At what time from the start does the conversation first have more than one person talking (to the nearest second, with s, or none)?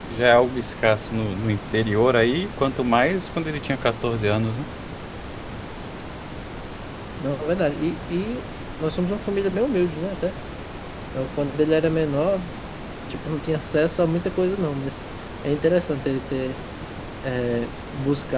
none